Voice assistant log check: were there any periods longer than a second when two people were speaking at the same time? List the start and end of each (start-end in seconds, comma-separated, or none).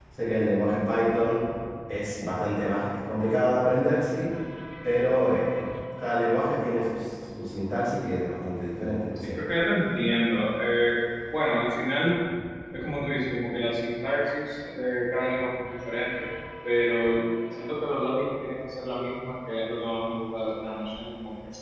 none